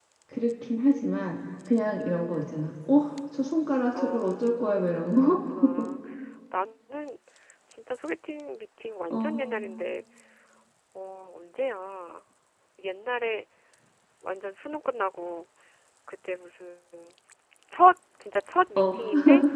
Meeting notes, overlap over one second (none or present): present